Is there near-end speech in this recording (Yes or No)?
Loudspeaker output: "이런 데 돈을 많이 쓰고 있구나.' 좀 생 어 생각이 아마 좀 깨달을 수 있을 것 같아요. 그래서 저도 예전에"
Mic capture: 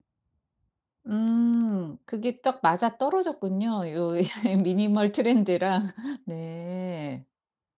Yes